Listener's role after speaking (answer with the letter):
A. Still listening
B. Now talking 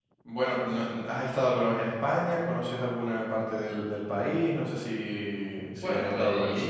B